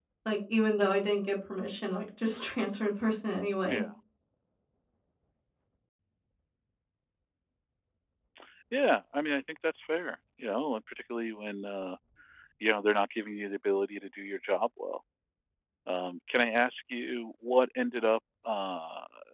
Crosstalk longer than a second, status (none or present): none